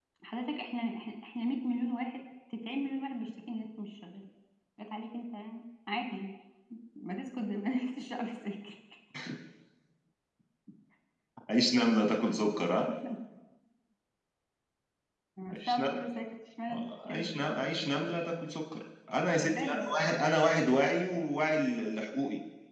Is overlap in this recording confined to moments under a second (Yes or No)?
No